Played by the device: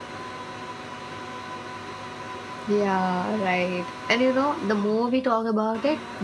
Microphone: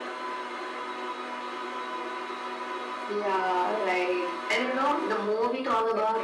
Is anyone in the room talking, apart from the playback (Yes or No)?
Yes